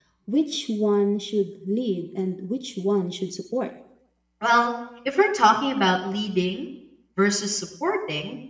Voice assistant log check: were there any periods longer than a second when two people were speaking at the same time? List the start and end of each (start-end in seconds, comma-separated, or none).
none